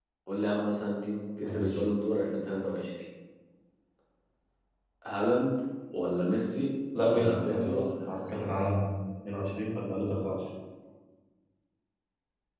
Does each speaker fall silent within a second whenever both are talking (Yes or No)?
No